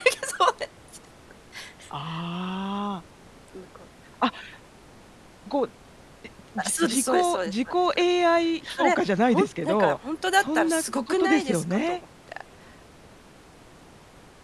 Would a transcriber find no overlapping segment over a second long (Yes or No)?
No